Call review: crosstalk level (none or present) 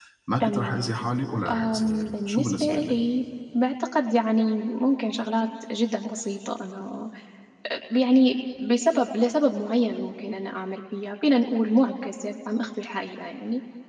present